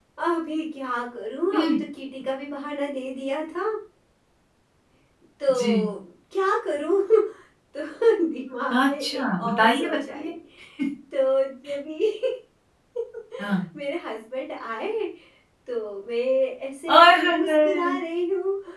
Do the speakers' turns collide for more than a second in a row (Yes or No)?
Yes